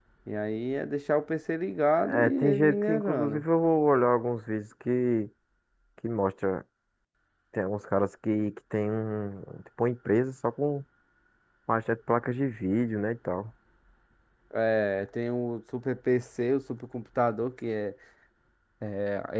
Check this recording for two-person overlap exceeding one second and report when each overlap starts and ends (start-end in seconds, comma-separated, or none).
2.1-3.4